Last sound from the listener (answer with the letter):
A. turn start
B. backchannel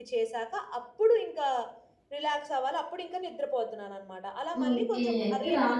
A